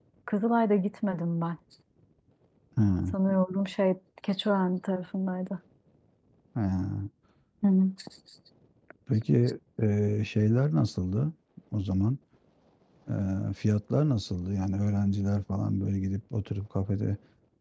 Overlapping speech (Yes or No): No